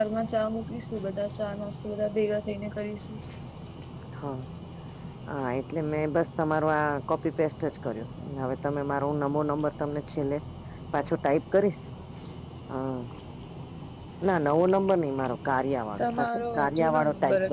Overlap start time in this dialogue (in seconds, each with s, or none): 16.0 s